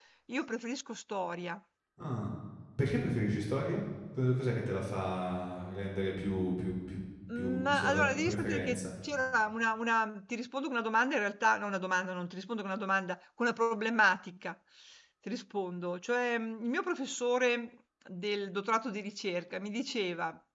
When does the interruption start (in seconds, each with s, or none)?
7.3 s